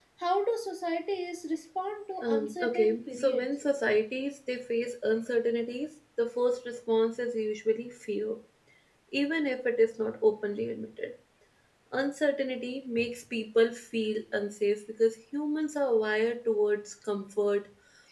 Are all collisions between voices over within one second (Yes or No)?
No